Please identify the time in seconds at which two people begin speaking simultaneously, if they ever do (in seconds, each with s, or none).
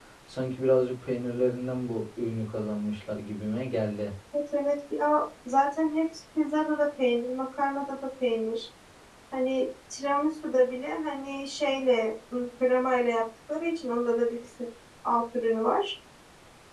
none